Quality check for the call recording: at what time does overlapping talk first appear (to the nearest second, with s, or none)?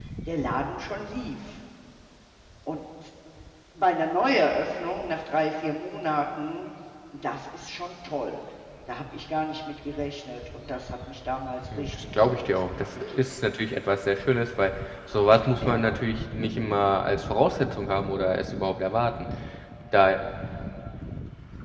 12 s